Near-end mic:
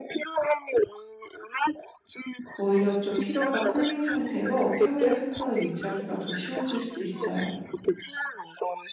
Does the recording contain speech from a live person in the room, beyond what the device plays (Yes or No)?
Yes